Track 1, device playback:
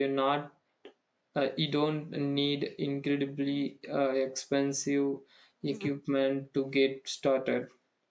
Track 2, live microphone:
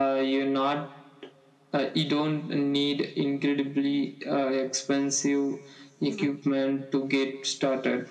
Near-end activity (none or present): none